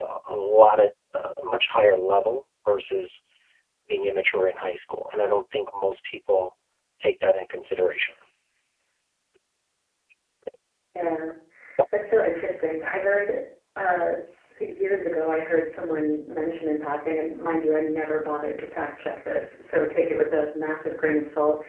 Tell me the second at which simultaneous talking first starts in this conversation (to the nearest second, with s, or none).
none